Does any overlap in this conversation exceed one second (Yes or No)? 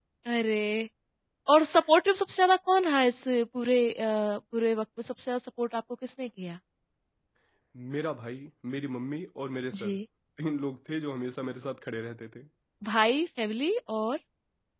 No